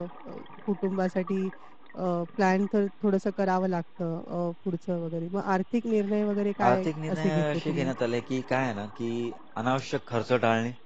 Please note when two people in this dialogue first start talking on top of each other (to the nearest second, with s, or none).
7 s